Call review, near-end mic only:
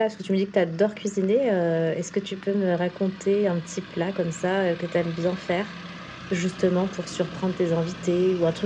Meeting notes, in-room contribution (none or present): none